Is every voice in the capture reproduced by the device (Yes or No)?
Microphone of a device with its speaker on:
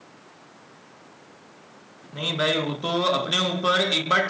Yes